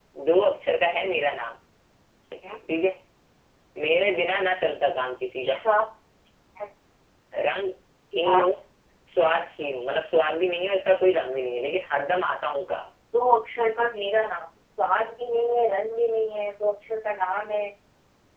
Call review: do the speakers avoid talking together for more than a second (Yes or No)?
Yes